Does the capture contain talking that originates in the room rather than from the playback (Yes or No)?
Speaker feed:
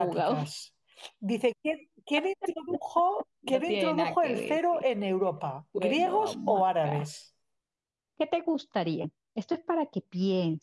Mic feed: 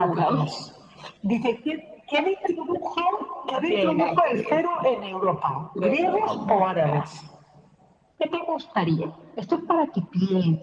No